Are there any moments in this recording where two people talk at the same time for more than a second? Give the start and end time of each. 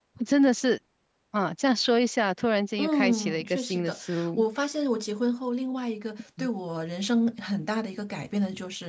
2.8-4.4

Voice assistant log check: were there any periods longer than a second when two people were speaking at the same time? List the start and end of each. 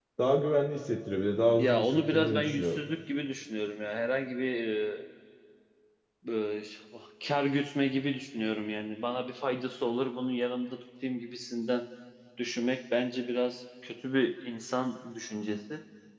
1.6-2.8

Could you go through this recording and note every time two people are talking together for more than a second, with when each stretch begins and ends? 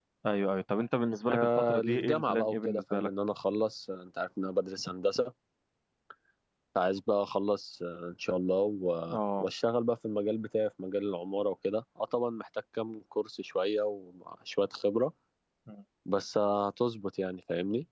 1.3-3.1

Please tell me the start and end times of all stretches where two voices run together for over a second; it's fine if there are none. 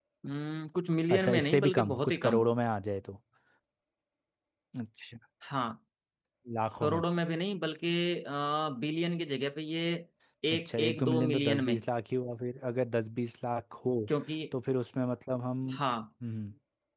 1.1-2.4, 10.5-11.8

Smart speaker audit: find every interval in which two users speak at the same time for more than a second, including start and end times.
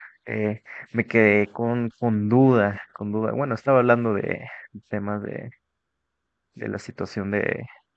none

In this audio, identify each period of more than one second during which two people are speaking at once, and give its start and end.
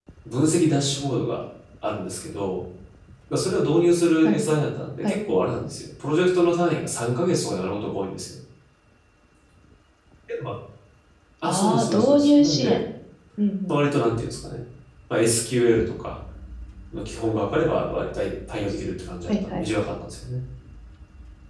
11.4-12.8

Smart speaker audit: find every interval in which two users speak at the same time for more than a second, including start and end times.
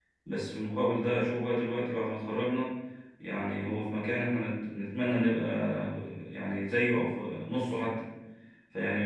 none

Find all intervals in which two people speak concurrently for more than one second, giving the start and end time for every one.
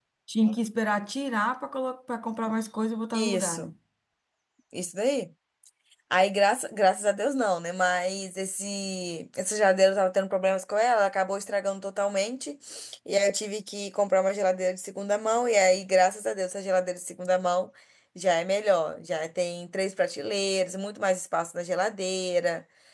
none

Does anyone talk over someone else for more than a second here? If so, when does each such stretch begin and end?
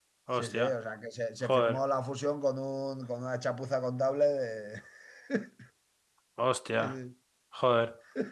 none

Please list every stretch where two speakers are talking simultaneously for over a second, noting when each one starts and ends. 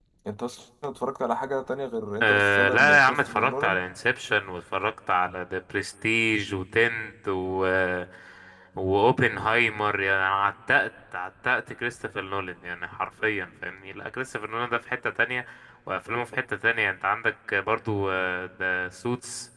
2.2-3.8

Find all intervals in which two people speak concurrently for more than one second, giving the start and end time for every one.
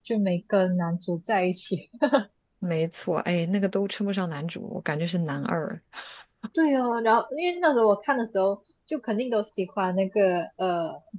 none

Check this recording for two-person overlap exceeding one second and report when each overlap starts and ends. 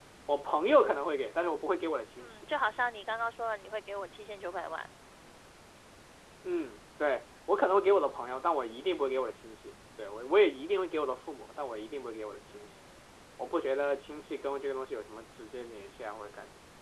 none

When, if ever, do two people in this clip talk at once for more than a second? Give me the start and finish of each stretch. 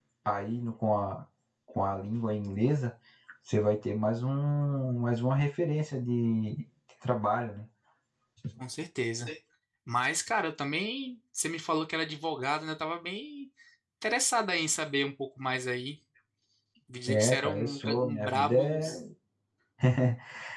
17.1-18.9

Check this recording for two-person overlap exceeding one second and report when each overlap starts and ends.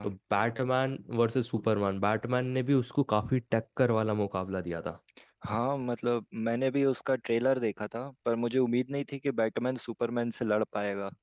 none

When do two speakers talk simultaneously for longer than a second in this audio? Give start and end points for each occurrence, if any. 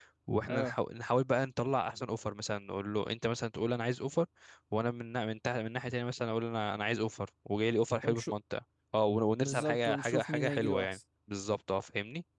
9.4-11.0

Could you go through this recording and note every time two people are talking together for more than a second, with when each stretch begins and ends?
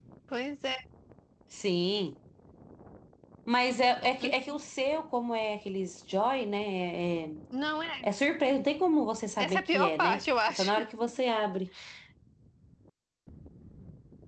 9.4-10.7

